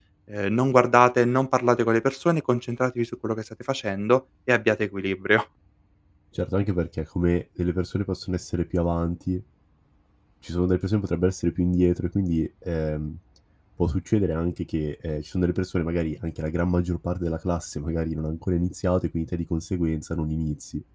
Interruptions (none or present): none